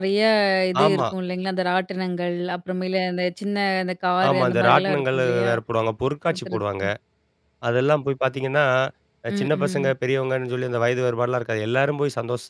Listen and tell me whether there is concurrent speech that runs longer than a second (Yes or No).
Yes